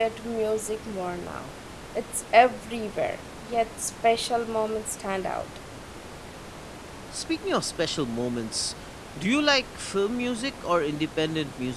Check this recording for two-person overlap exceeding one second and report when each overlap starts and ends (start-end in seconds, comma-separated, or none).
none